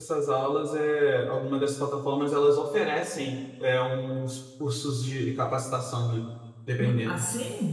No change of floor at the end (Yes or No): No